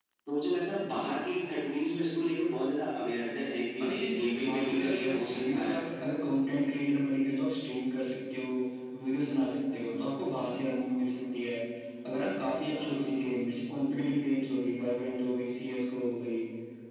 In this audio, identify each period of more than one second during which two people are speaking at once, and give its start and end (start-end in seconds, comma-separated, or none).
3.8-5.8